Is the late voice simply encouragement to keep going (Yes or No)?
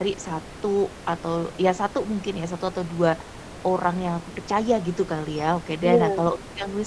Yes